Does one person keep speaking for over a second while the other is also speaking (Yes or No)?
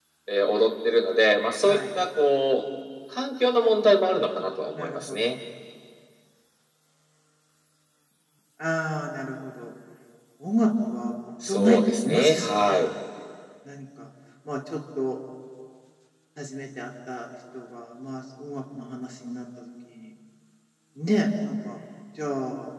Yes